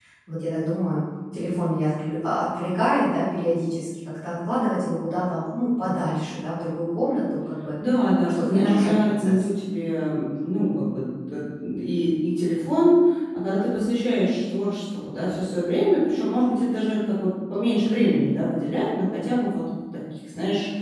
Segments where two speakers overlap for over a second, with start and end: 8.2-9.4

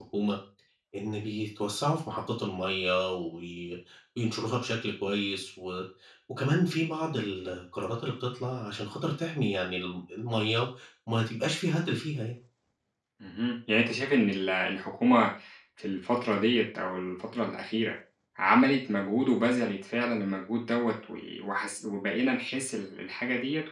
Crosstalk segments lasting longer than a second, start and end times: none

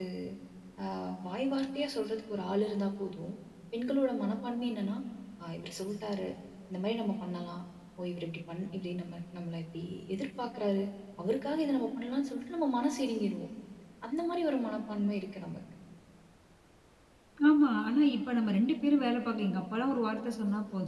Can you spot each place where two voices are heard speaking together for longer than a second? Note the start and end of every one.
none

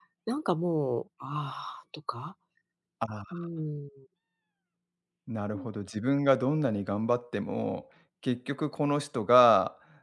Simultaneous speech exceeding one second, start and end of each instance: none

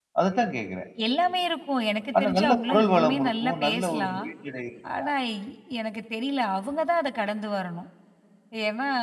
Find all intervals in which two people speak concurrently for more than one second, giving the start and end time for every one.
2.2-4.2

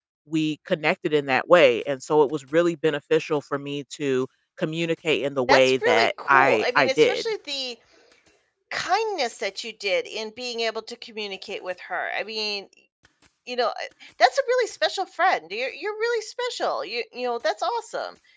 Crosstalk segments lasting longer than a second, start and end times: 5.5-7.2

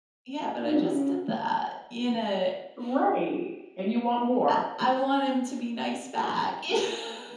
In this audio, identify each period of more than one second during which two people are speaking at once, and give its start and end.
none

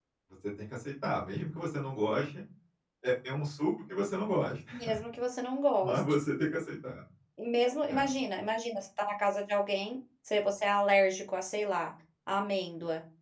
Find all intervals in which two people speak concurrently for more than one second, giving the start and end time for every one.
none

